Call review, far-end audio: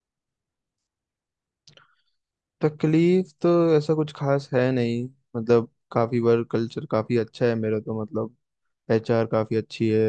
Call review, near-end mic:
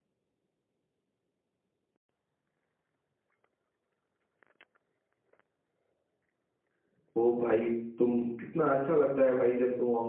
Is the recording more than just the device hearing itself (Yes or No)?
Yes